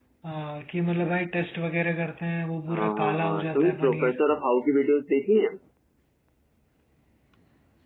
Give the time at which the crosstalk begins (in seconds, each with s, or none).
2.7 s